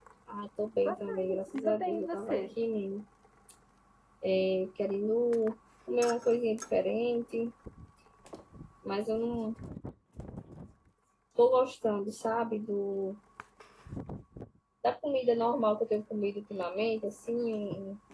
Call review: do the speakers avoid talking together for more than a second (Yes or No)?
No